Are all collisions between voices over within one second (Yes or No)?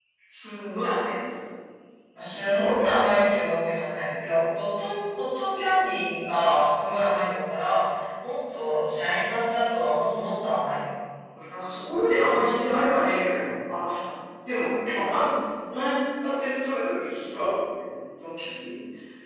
Yes